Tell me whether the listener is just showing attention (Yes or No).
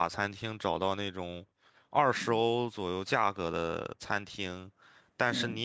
Yes